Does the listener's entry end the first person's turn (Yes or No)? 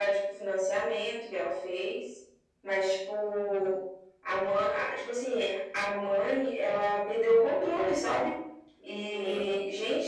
No